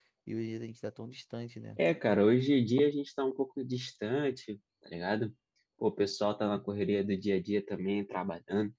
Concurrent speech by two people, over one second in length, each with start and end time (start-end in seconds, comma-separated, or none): none